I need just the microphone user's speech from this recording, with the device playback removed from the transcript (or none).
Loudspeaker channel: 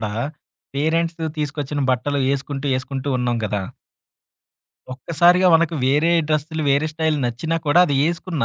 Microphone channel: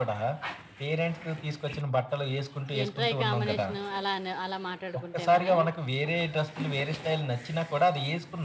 ఏంట్రా ఈ కాంబినేషను అలా అనే అలా మాట్లాడుకుంటేవారా?